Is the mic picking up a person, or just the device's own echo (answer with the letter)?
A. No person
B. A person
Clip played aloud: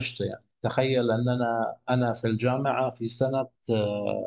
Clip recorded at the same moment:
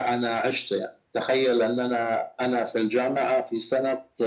A